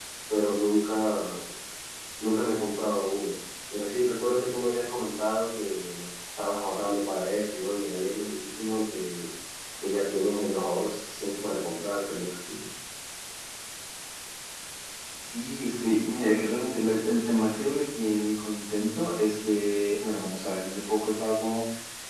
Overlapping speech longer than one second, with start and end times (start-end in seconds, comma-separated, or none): none